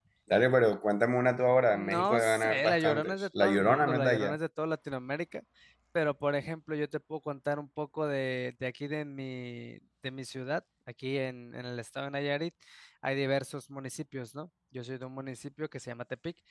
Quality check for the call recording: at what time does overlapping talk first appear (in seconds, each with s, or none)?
1.7 s